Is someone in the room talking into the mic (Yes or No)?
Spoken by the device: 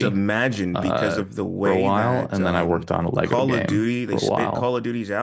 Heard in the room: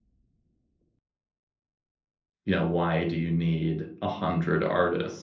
Yes